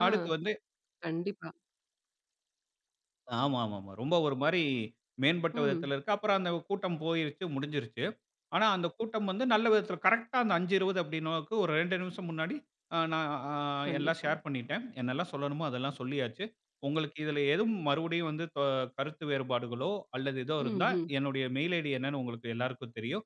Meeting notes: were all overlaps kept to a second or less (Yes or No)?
Yes